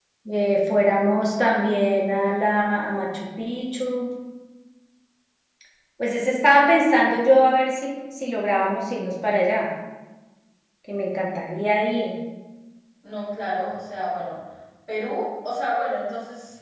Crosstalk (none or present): none